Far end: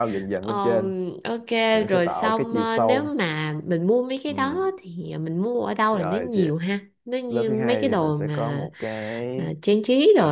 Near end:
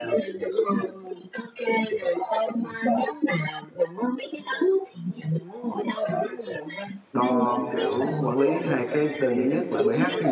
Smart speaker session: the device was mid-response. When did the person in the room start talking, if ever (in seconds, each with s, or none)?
7.1 s